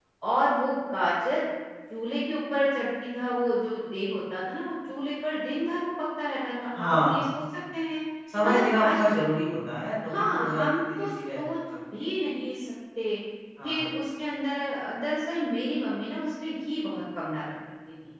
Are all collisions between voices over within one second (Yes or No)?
No